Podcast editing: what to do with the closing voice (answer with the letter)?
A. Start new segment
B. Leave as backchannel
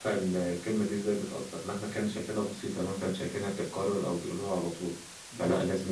B